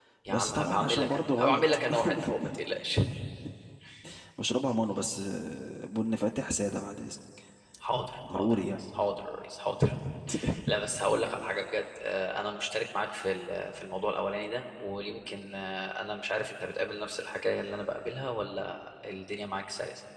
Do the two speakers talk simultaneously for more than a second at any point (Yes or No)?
Yes